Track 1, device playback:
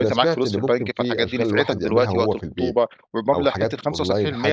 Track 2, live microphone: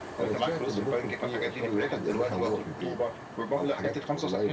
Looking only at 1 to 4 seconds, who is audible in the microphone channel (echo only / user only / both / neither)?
echo only